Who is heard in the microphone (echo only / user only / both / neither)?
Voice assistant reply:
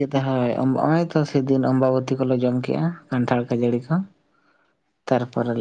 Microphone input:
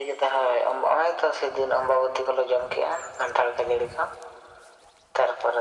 echo only